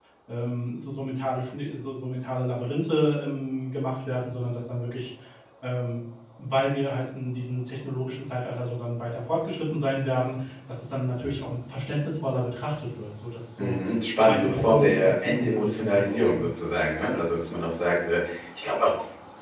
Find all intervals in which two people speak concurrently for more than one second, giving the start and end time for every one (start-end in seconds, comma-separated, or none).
14.2-16.5